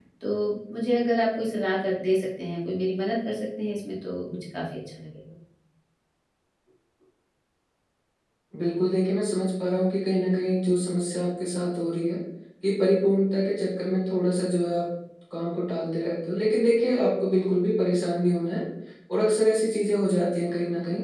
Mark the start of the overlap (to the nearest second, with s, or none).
none